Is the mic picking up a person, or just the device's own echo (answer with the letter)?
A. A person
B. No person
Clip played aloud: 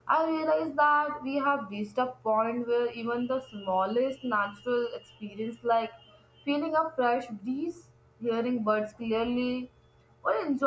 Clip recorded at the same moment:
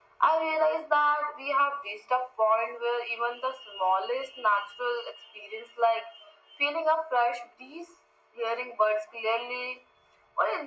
B